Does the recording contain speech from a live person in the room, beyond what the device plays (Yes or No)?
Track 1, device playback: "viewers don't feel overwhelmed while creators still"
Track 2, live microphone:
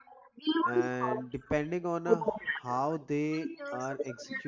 Yes